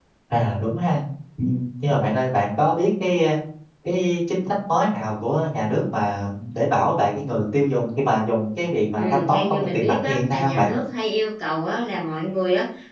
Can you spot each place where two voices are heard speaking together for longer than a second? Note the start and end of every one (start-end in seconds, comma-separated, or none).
9.0-10.7